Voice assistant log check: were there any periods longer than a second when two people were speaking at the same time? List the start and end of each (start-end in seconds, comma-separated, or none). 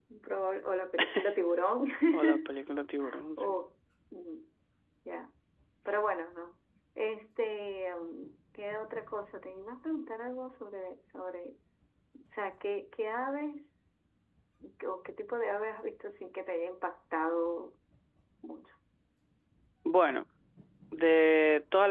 none